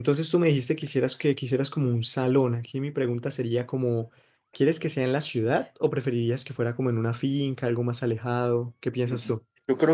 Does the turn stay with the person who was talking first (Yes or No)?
No